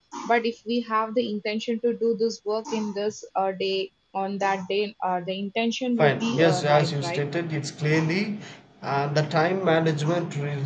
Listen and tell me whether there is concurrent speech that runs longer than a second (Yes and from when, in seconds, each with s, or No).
Yes, from 6.0 s